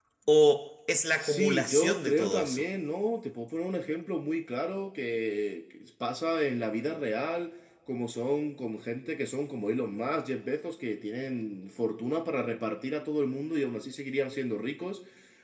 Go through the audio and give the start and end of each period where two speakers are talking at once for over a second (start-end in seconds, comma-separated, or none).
1.2-2.6